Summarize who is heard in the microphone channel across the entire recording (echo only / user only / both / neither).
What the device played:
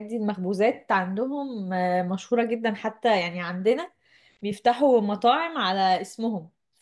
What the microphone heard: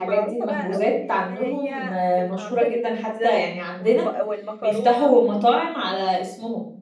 both